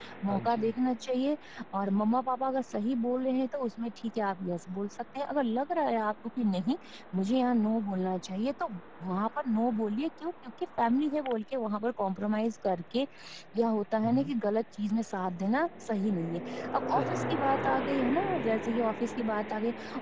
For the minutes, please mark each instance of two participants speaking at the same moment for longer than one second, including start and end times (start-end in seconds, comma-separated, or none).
16.9-18.5